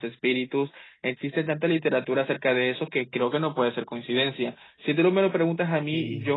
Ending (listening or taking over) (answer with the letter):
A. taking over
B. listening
A